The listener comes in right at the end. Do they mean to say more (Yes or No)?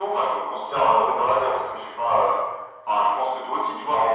No